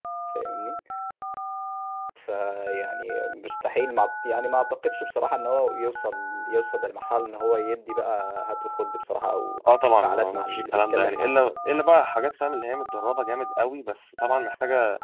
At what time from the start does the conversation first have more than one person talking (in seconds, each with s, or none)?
9.9 s